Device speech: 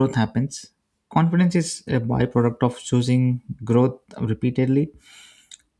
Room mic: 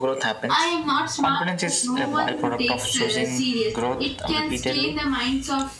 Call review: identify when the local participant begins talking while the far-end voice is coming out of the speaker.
0.5 s

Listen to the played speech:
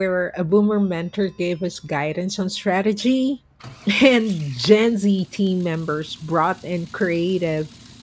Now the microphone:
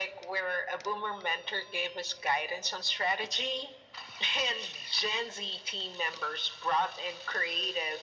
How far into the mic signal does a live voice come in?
none

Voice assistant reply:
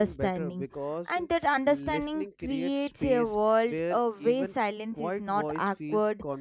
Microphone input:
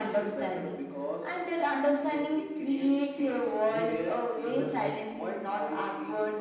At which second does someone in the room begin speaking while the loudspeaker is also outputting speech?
3.6 s

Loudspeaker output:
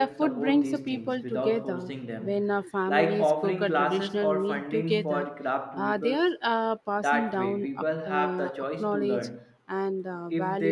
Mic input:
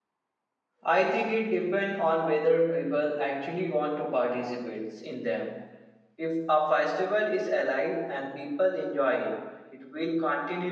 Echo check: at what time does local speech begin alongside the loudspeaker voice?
0.8 s

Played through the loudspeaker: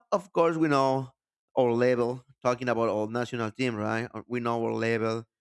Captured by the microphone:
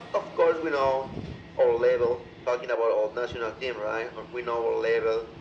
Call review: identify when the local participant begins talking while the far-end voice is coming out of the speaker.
none

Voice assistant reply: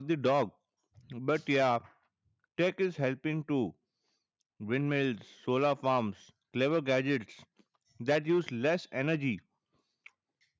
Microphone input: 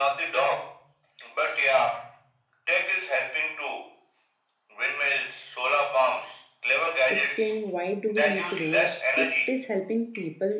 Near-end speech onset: 7.1 s

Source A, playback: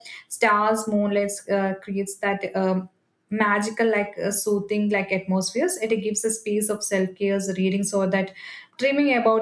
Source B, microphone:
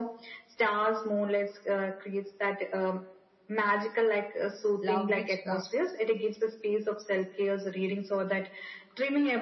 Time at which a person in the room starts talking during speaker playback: 4.8 s

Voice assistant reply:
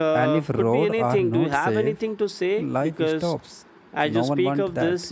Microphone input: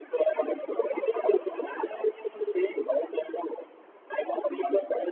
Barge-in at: none

